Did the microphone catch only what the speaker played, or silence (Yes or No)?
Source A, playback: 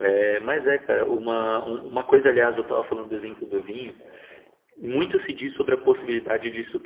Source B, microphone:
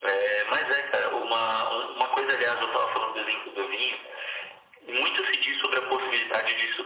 Yes